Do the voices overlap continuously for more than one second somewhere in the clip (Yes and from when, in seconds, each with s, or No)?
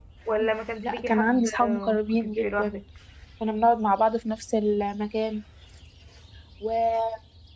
Yes, from 0.8 s